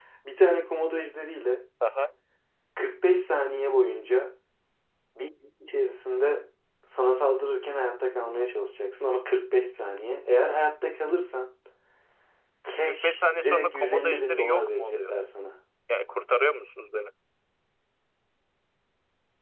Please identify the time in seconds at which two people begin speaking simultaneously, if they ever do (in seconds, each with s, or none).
12.8 s